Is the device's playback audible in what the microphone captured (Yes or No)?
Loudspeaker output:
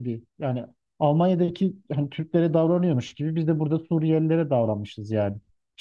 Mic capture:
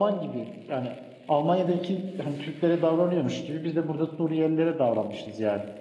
Yes